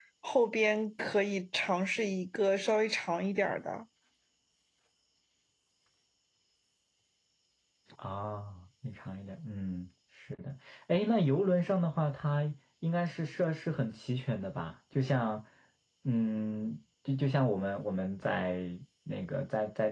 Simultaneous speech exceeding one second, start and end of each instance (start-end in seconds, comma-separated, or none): none